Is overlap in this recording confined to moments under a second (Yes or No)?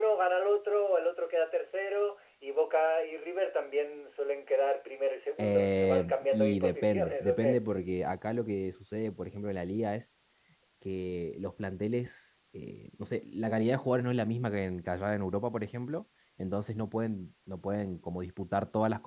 No